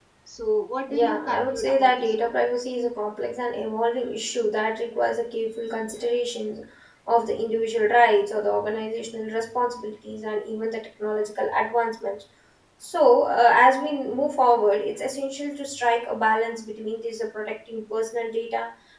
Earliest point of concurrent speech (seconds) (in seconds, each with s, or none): 0.9 s